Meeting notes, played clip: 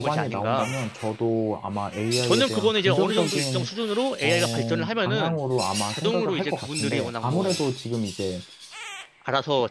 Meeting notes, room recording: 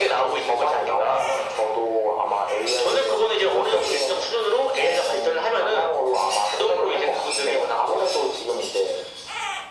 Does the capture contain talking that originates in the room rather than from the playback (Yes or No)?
No